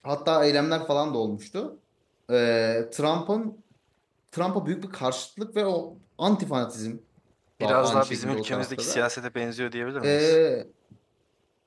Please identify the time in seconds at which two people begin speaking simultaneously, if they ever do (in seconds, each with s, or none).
7.6 s